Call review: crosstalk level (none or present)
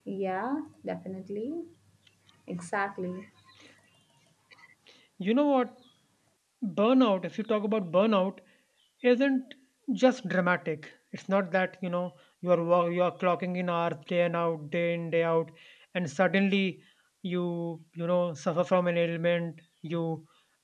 none